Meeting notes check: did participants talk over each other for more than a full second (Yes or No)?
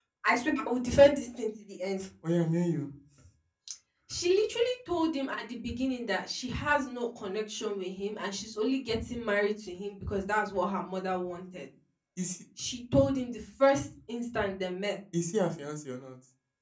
No